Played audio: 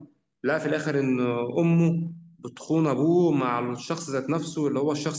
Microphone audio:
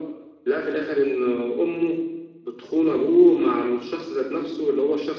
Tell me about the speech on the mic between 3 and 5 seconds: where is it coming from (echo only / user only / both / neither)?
echo only